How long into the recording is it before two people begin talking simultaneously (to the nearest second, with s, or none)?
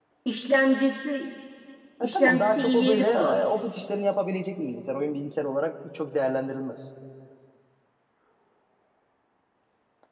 2 s